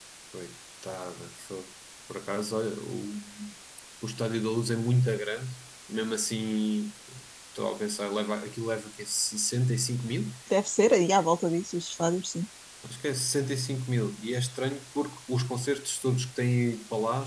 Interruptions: none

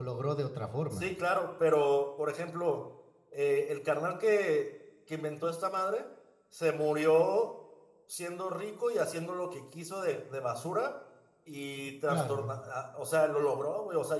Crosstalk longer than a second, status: none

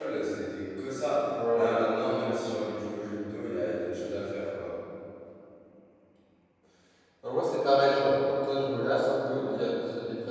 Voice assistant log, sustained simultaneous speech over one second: none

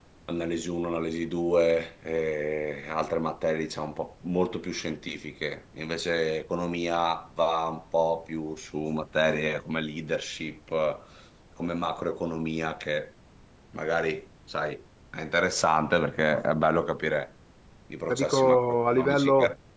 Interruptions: present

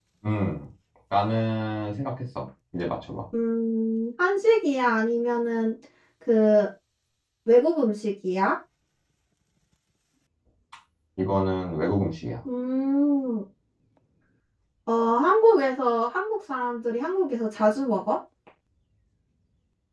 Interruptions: none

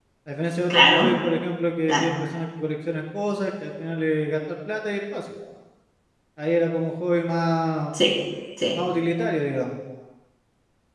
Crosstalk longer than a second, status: none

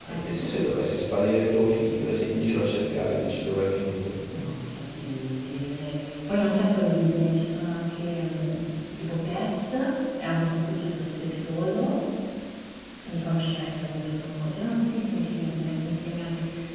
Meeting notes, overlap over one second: none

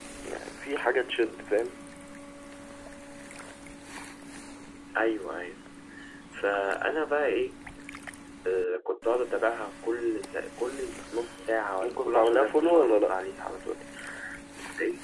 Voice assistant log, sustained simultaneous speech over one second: present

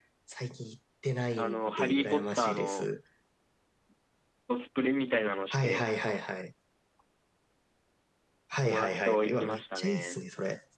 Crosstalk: present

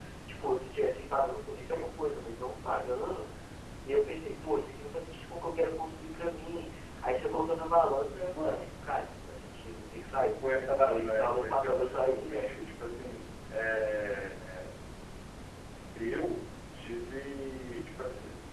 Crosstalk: present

